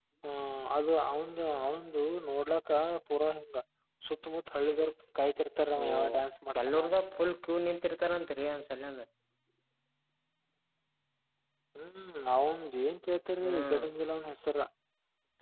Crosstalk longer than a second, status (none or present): none